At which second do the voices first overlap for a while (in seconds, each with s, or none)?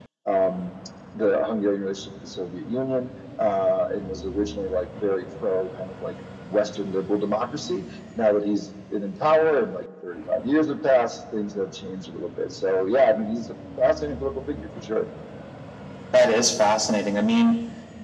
none